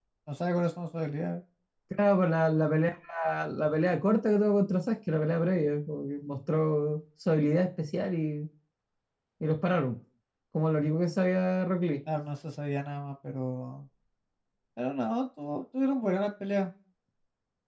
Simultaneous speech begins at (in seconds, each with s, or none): none